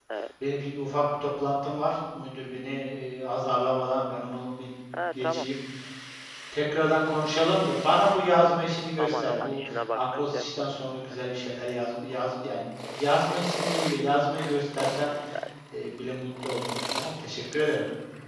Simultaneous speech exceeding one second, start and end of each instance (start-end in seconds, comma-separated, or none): 9.0-10.7